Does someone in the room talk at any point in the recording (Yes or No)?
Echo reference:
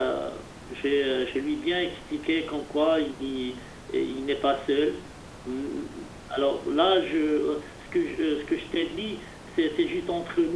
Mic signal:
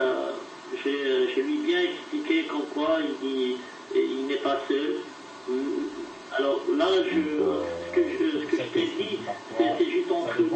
Yes